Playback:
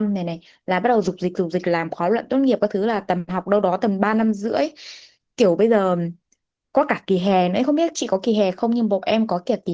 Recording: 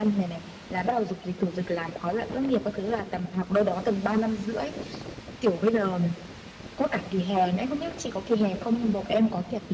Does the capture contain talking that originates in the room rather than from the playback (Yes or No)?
No